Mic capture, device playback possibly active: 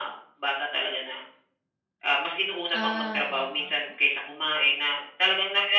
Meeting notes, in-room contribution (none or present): present